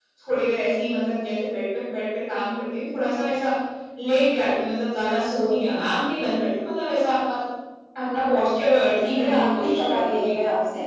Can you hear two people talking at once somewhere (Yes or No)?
Yes